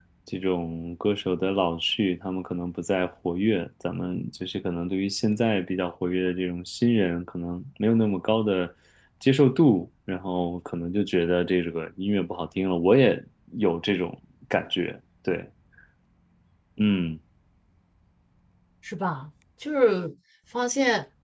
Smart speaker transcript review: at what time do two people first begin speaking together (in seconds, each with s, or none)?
none